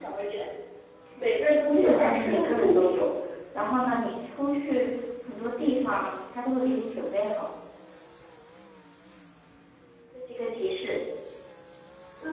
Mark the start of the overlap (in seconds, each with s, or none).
1.7 s